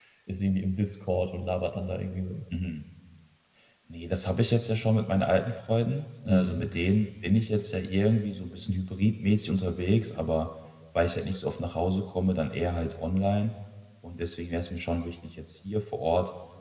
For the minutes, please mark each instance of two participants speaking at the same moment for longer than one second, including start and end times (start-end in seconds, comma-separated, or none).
none